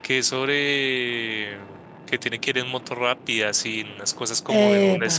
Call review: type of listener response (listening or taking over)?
listening